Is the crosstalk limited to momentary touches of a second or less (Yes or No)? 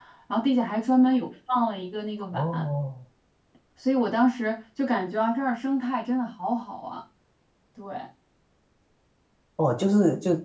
Yes